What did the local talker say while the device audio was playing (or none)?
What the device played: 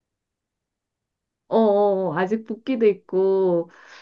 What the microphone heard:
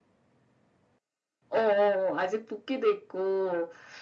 none